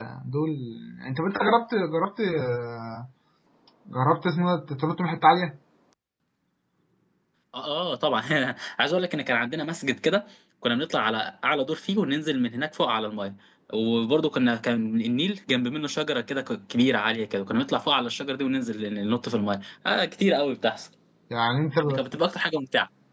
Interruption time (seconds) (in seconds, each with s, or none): none